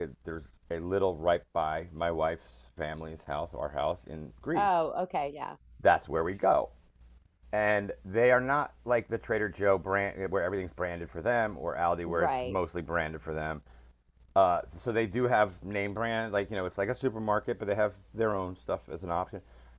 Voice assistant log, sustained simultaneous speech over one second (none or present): none